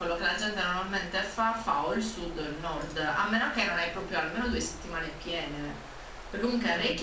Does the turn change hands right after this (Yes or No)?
No